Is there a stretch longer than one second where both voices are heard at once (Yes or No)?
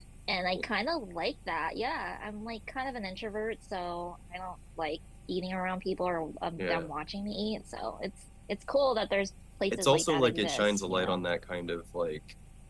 Yes